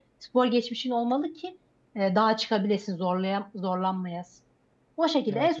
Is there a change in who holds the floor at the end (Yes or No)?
No